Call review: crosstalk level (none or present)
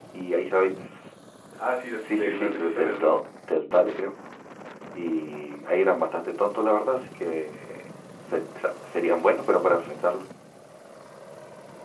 present